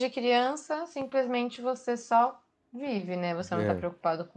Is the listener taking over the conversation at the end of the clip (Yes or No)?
No